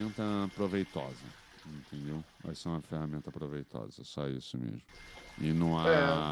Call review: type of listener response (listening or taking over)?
listening